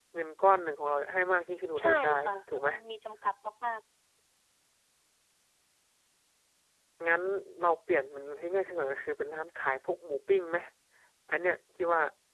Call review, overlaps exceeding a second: none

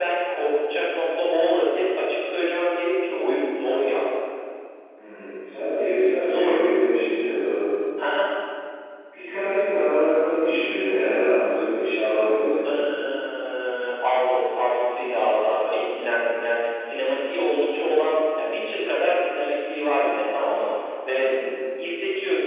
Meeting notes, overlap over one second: none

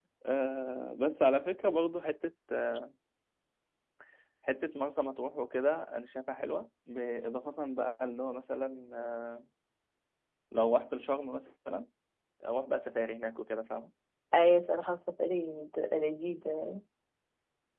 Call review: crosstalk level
none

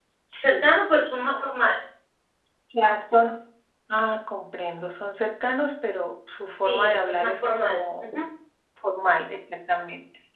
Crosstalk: present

